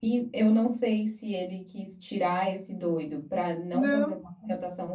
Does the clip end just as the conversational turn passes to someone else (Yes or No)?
No